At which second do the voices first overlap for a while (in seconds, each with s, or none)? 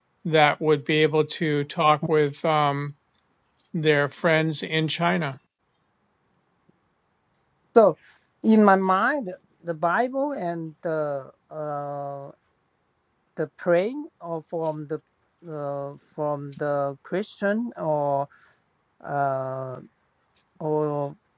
none